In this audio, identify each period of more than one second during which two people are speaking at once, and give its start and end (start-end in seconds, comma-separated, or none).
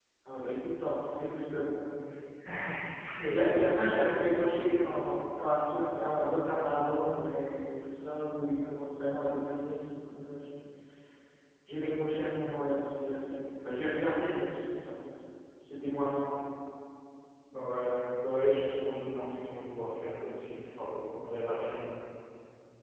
3.3-4.6